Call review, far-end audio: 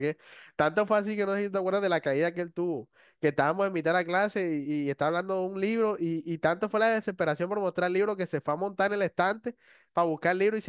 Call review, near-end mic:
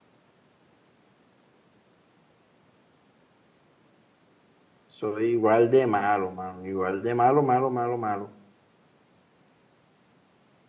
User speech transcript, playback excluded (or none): soy igual de malo, mano. Igual de malo, malo, malo, malo.